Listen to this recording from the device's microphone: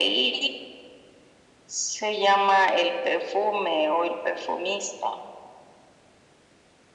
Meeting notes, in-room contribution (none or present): none